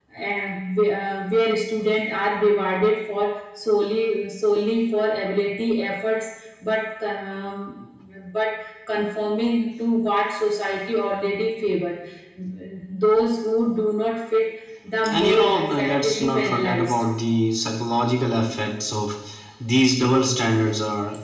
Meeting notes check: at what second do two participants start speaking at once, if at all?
15 s

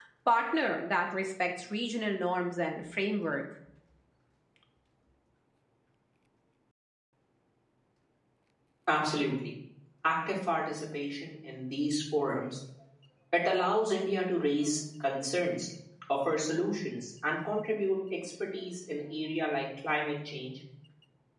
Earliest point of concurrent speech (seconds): none

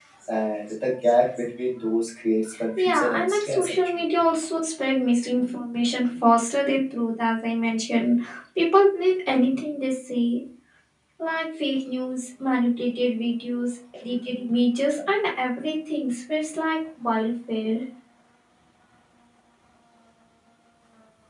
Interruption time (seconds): 3 s

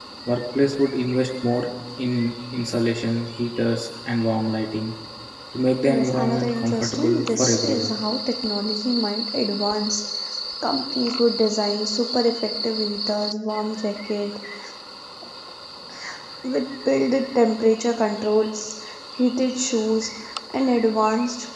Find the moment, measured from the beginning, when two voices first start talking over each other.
6 s

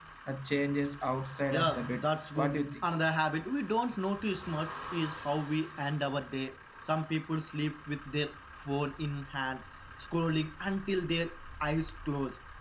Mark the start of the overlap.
2 s

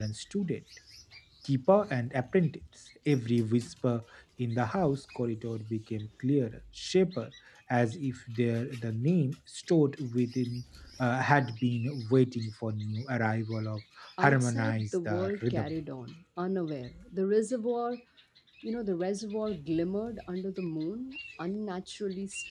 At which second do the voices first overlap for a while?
14 s

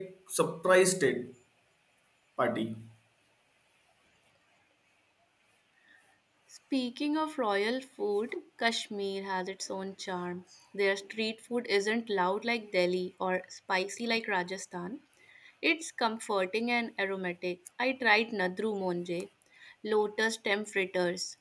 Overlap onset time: none

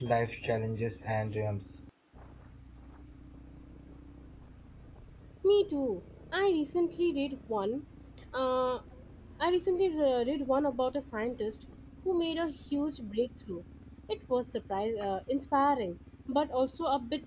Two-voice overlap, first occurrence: none

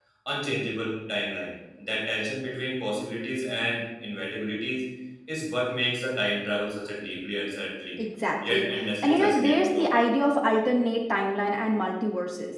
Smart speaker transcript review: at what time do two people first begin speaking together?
8 s

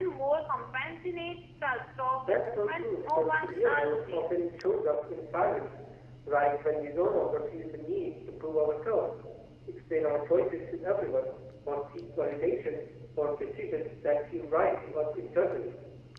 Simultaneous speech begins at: 2 s

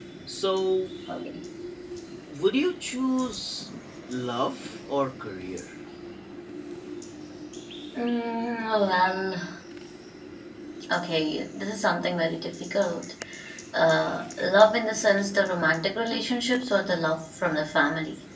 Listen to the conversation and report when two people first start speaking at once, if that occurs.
none

